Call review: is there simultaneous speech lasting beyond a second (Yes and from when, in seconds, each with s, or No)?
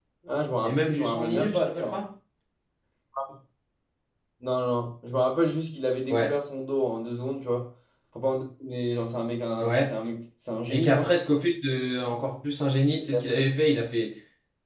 Yes, from 0.6 s